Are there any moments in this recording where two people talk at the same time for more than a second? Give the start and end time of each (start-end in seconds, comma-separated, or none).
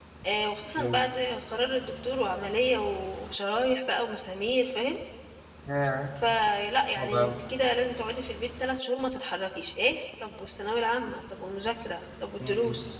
none